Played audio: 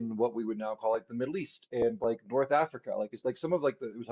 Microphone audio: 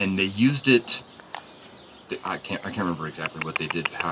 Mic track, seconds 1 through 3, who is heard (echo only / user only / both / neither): user only